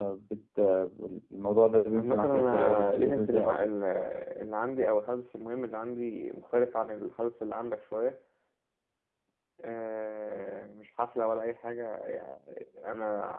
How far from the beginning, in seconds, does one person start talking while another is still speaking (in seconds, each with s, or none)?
1.9 s